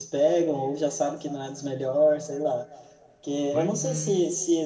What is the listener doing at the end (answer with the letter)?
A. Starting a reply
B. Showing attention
B